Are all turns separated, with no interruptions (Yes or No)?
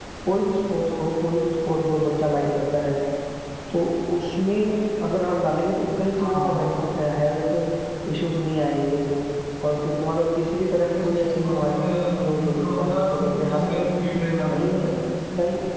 No